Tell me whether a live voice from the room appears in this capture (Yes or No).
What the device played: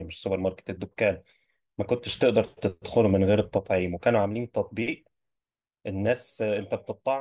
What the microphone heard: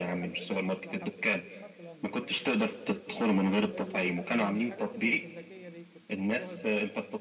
Yes